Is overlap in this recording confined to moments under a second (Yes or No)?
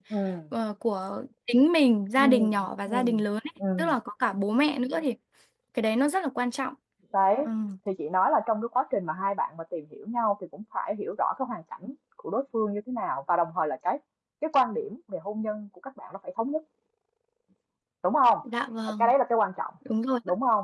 Yes